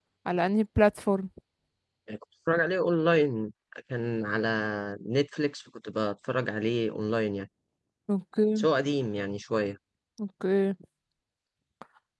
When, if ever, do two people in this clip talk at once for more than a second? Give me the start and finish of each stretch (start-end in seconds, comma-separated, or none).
none